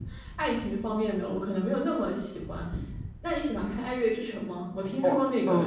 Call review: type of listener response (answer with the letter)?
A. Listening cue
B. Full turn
A